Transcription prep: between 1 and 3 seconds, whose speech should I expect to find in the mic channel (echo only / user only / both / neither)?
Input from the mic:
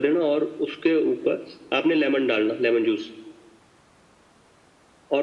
echo only